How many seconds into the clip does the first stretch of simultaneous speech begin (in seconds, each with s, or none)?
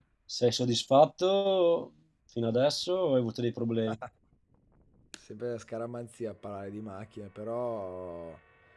none